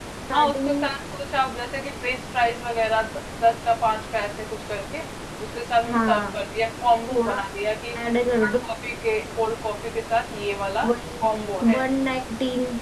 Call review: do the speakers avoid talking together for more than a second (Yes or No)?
Yes